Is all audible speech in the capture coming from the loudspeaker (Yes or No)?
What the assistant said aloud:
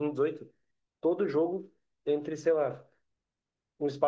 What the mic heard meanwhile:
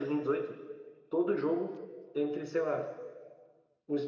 Yes